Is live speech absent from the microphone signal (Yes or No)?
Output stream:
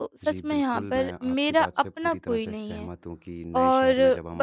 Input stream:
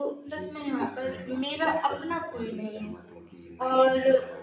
Yes